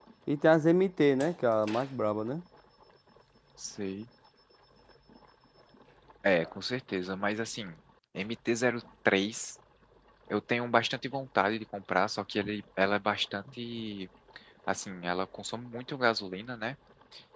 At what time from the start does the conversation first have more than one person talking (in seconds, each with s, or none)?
none